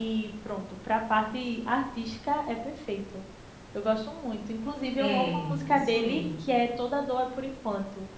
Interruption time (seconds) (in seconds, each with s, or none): 5.0 s